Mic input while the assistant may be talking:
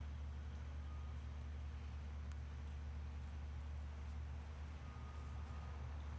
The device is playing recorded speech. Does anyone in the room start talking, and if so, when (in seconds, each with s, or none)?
none